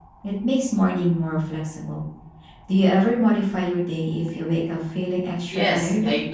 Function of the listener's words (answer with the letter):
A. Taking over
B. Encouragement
A